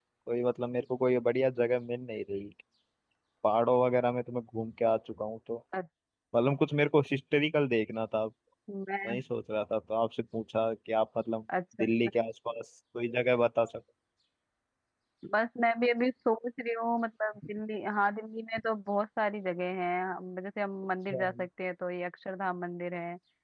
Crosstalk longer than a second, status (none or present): none